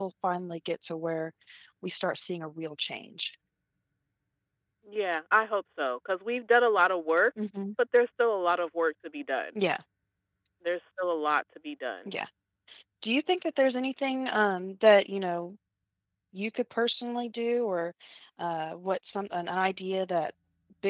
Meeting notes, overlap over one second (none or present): none